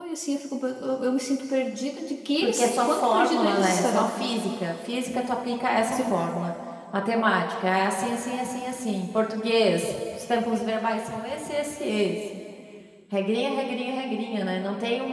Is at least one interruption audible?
Yes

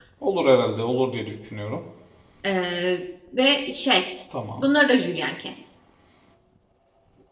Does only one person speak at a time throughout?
Yes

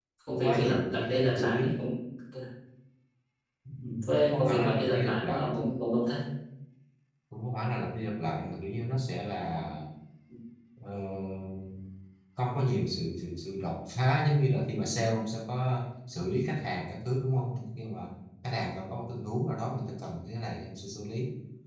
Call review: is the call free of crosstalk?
No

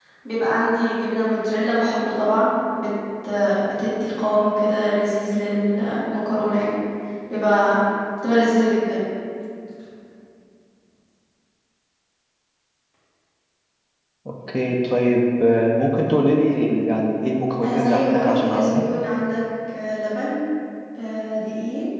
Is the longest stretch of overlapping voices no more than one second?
No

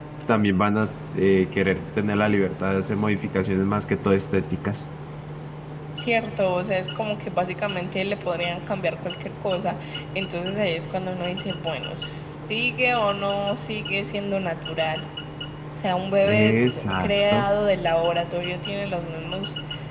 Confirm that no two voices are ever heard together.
No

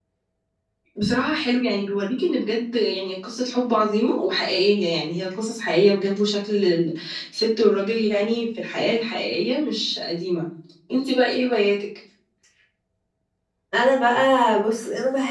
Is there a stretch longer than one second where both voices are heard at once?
No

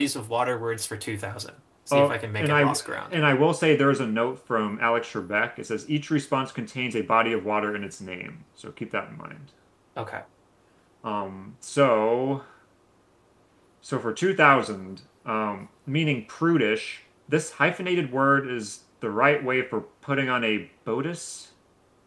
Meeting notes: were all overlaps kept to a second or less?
No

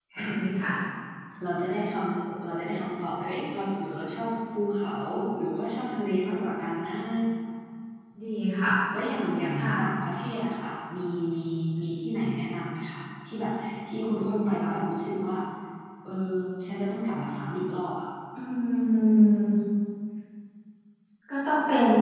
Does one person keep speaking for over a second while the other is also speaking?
No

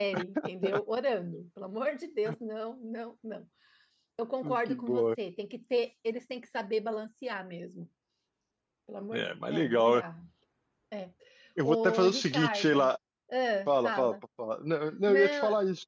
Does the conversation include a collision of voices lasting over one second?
Yes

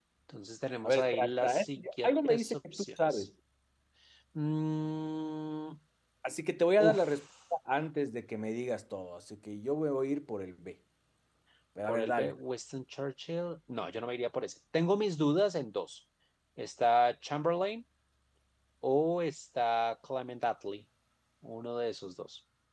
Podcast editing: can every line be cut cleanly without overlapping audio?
No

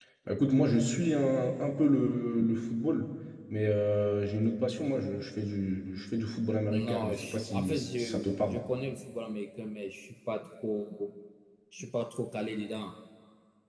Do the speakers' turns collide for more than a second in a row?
Yes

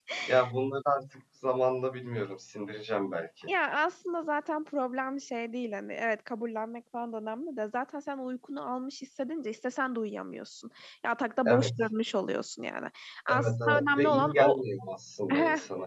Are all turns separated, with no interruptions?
No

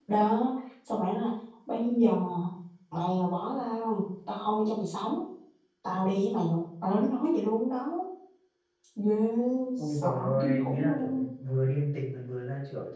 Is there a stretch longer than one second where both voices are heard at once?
Yes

